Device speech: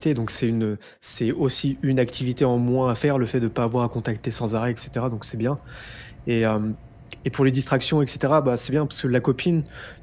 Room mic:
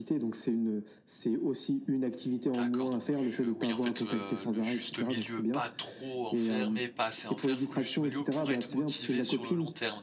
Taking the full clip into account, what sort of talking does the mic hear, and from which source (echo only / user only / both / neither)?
both